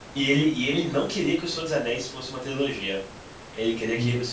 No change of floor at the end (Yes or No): Yes